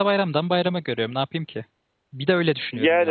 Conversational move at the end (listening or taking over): taking over